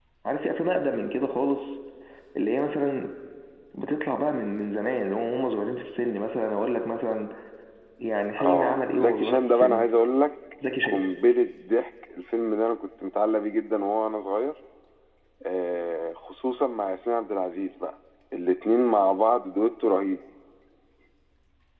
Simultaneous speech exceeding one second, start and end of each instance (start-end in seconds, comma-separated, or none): 8.4-9.9